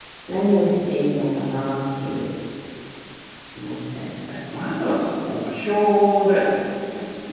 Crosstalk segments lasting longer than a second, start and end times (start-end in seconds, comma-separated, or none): none